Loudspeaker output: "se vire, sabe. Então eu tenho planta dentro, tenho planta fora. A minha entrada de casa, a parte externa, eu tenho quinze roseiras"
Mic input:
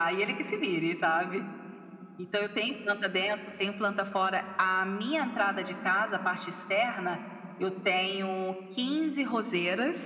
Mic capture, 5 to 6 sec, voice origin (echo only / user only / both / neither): echo only